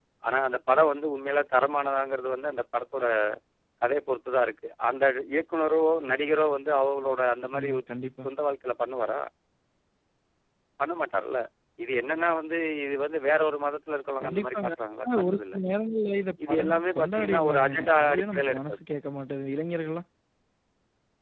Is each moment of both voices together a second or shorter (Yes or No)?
No